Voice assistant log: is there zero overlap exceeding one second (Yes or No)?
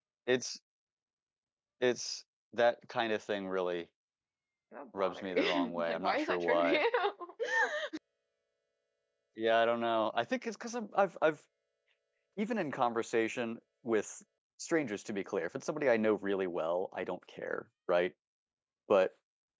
No